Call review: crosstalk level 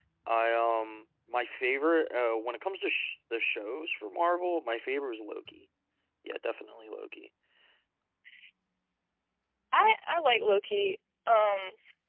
none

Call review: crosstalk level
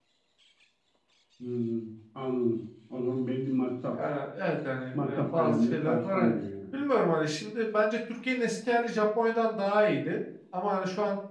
present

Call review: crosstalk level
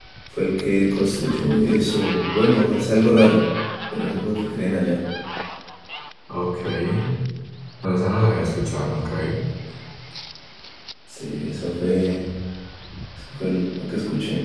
none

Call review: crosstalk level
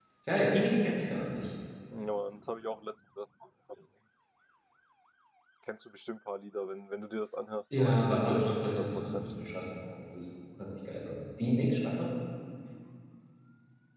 present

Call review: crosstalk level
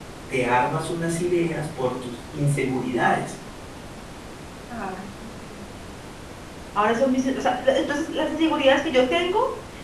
none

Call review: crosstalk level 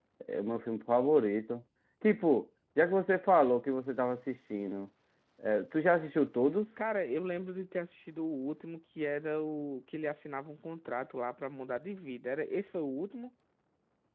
none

